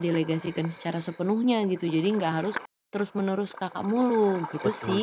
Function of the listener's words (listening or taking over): taking over